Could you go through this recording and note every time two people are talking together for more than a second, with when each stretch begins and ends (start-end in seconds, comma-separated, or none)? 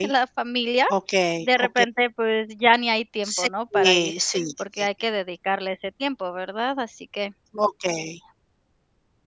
none